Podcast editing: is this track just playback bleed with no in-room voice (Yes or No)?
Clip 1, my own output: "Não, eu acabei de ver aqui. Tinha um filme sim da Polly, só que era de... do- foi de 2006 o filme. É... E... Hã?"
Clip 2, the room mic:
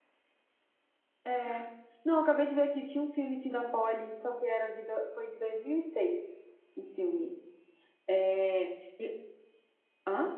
Yes